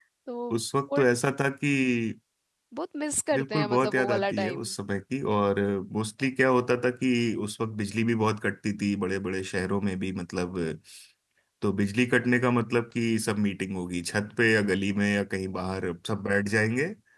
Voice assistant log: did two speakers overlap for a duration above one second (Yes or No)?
Yes